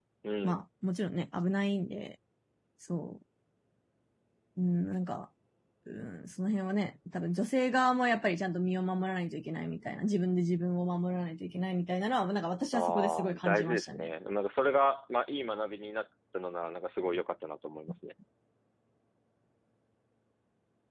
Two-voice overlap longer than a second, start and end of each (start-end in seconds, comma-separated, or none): 12.7-14.1